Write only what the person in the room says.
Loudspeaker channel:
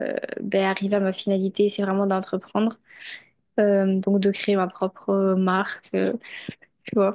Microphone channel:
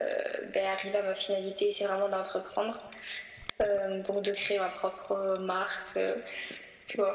none

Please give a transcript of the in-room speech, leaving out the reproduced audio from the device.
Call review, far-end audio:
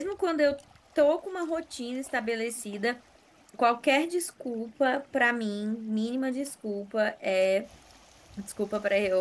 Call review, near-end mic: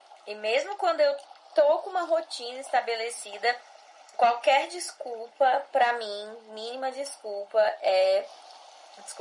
none

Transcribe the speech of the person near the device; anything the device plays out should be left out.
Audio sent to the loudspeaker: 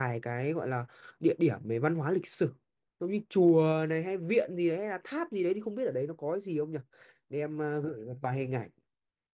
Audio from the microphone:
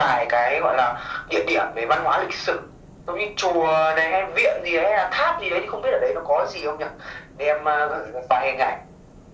none

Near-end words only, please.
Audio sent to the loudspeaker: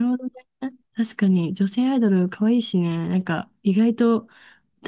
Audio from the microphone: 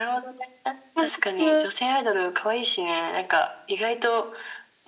韓国

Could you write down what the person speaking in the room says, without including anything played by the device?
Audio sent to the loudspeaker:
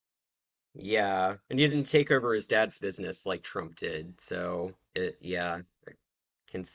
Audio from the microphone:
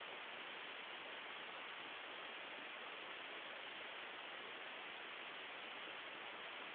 none

